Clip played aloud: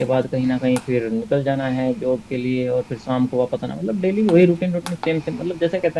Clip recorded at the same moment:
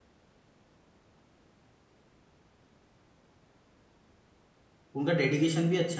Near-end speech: present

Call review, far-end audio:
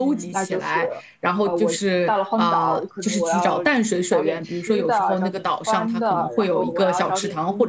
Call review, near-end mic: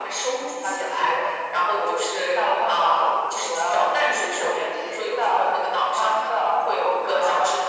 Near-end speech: none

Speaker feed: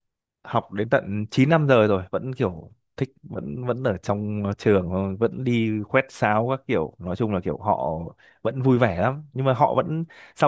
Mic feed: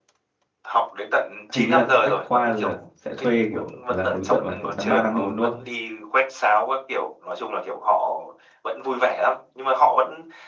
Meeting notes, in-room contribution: present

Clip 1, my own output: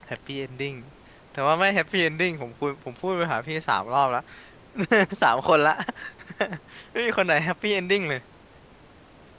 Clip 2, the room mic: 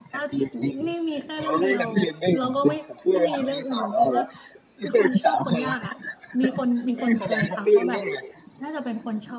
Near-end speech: present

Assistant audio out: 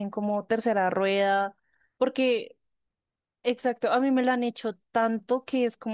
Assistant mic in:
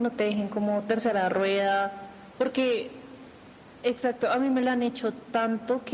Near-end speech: none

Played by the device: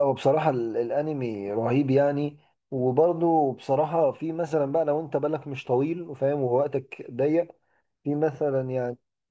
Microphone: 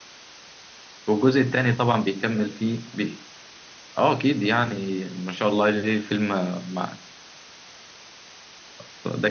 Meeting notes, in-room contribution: present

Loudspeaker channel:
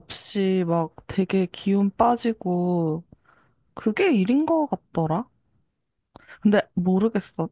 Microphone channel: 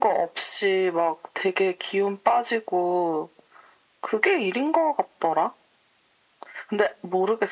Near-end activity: none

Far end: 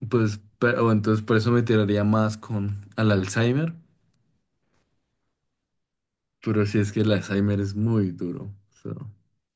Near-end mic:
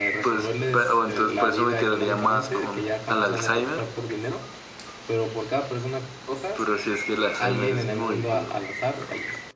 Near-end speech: present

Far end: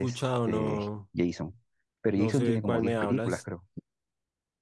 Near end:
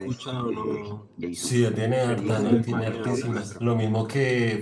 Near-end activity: present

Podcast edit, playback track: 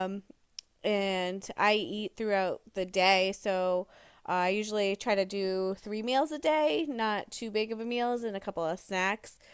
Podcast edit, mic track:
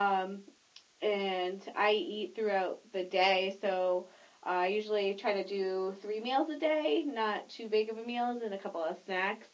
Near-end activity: none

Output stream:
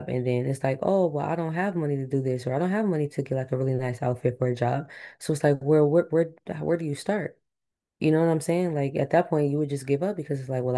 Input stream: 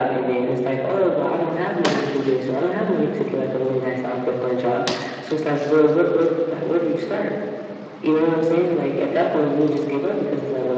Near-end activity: none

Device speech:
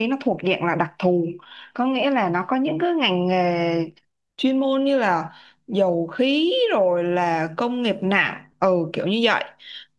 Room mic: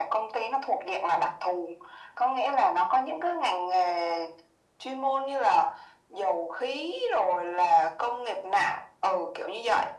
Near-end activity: none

